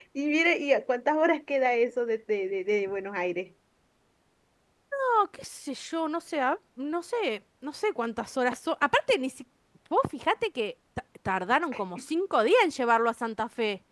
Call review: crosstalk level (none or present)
none